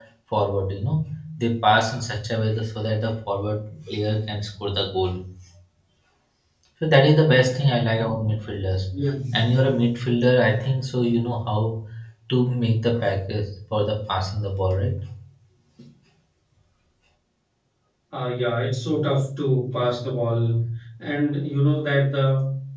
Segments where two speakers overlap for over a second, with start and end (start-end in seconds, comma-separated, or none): none